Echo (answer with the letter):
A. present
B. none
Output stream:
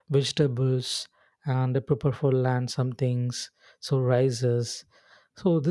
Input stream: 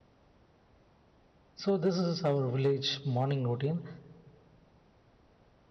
B